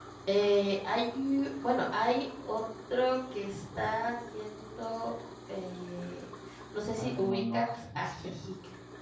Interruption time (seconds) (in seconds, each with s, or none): 7.0 s